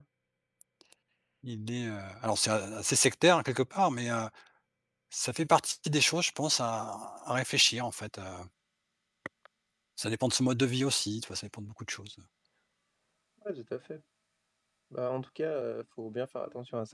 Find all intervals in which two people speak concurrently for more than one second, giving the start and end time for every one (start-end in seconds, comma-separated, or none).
none